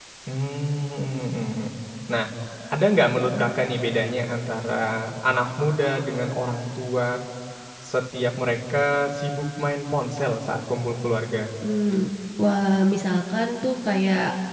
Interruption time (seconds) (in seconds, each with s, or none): none